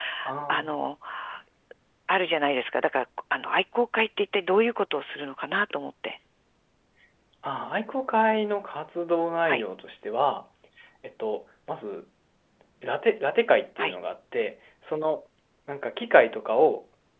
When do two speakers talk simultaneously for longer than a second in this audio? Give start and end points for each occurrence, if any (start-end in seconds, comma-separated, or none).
none